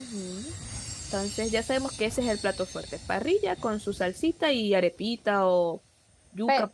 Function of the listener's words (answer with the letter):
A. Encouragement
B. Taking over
B